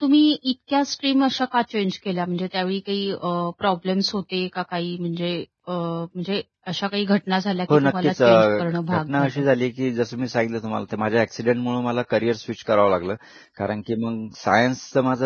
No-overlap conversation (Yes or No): No